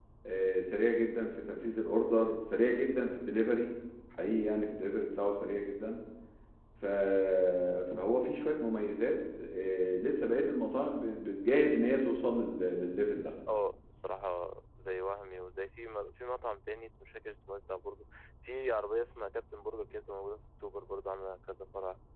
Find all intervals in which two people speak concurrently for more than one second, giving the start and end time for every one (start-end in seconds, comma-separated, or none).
none